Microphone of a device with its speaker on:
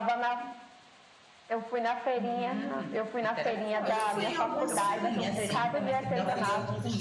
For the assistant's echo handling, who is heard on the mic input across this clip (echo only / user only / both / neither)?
both